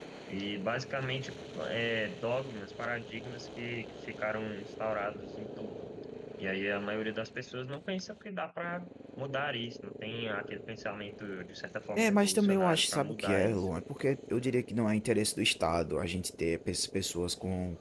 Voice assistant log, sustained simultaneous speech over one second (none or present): present